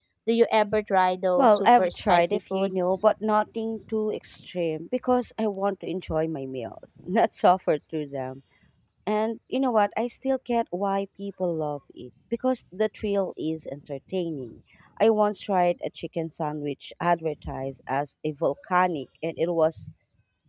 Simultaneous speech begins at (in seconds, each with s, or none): 1.4 s